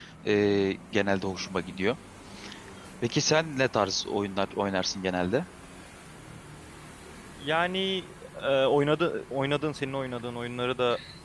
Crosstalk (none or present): none